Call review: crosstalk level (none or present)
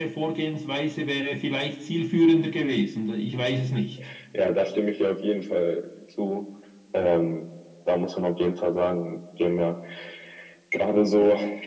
none